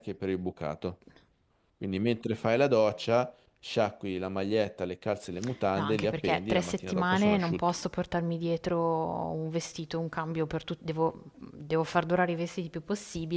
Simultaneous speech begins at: 5.8 s

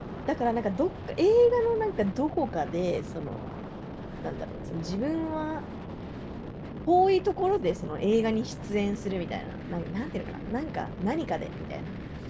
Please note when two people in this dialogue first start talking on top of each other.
none

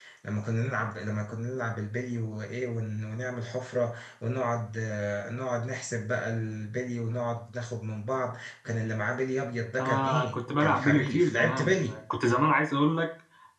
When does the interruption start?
9.8 s

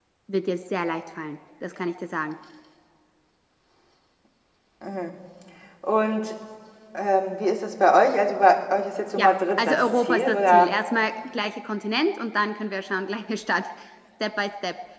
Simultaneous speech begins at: 9.2 s

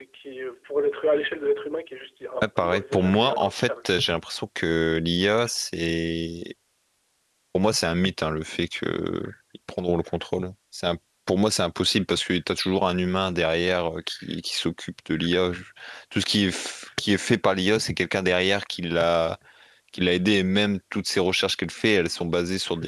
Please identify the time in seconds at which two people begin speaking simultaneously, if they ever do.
2.4 s

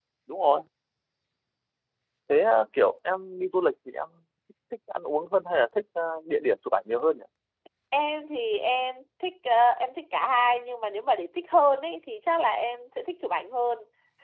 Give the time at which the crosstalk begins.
none

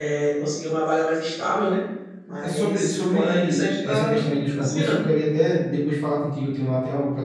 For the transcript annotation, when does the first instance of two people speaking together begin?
2.4 s

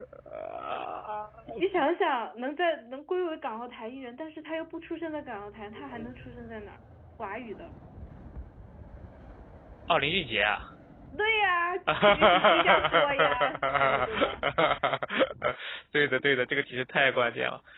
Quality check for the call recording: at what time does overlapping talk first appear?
11.9 s

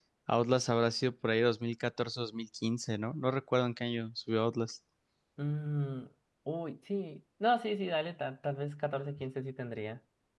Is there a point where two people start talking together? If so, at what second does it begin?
none

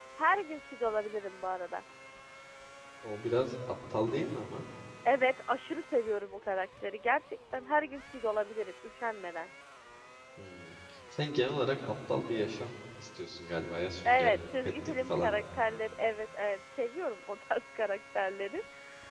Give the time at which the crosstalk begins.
14.0 s

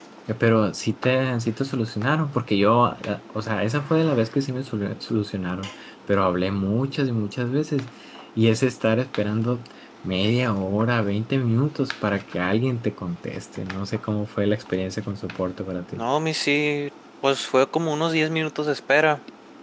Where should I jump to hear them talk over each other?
none

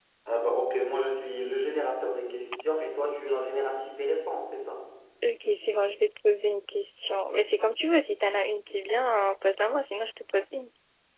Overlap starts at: none

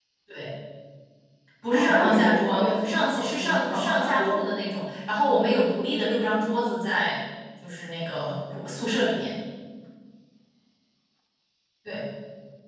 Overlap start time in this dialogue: 1.7 s

